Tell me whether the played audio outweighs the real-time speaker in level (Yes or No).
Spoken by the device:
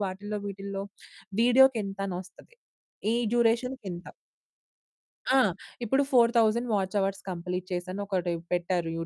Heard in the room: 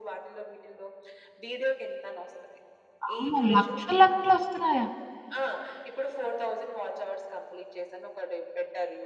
No